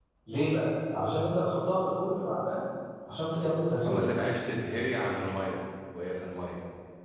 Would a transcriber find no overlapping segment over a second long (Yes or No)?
Yes